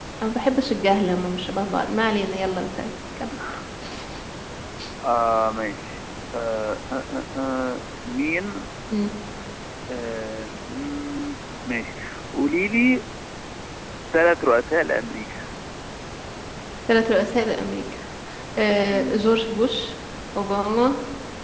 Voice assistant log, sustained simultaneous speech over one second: none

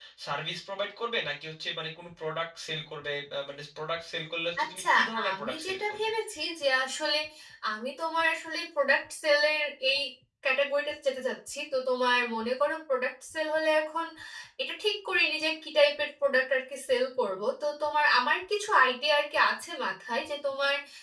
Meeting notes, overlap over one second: present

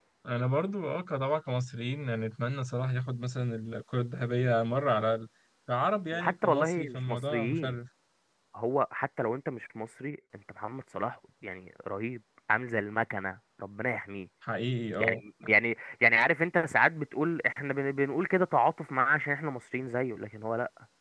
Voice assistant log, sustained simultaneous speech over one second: present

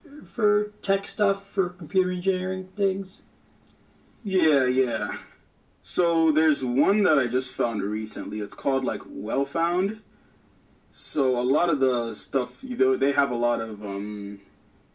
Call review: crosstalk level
none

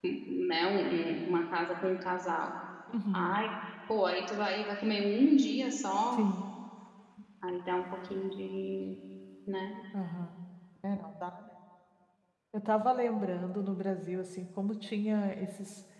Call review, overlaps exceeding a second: none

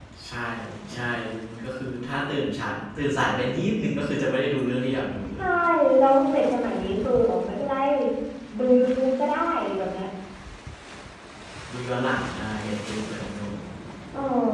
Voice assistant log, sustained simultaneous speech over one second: none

